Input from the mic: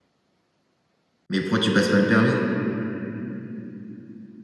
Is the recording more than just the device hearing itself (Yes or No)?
Yes